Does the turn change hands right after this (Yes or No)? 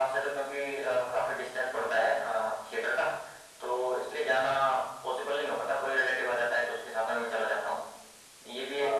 No